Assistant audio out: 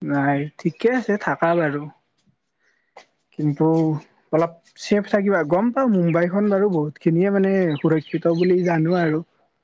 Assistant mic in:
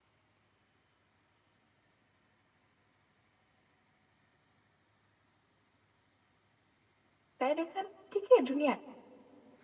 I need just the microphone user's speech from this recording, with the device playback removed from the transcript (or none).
তাই দেখান ঠিকেই ধুনীয়া।